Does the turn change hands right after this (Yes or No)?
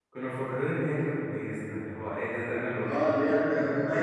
Yes